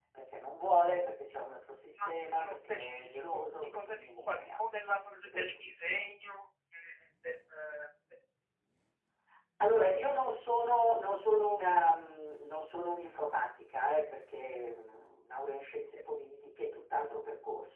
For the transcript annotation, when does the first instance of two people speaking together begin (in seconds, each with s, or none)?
1.9 s